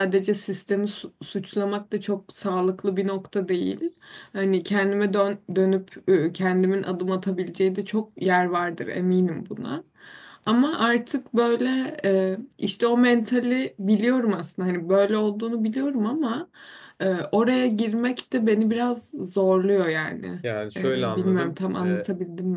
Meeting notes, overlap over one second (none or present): present